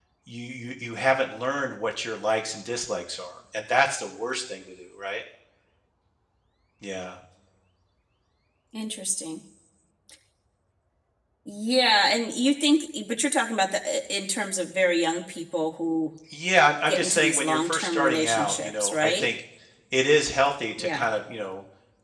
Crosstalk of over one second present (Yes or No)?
Yes